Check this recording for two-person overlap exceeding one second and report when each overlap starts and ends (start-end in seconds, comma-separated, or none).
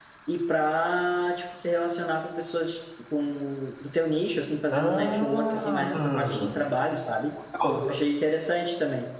4.7-6.5